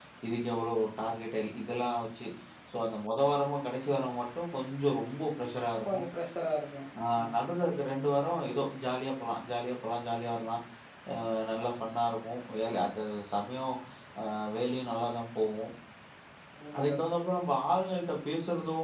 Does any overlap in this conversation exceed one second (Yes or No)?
No